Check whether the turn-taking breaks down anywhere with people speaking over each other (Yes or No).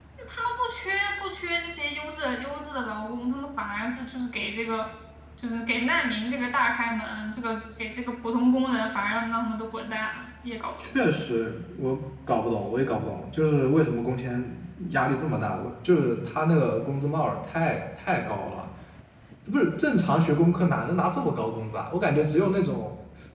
No